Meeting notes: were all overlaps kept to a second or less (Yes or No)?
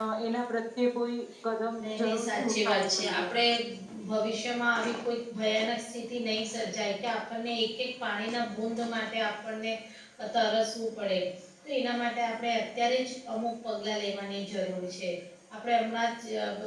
No